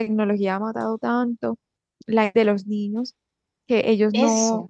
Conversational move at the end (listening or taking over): listening